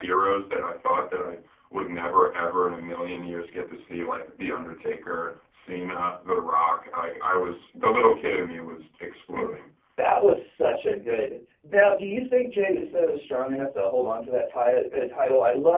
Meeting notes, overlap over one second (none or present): none